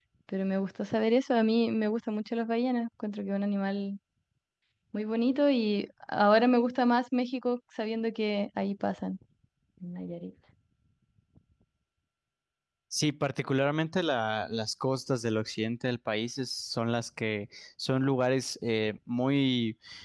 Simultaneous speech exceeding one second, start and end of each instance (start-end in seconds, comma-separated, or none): none